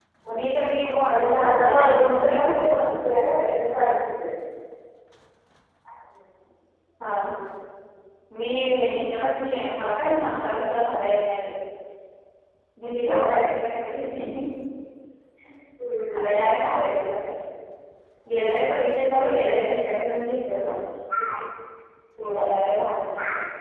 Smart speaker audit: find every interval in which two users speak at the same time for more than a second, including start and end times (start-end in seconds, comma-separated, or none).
1.1-2.8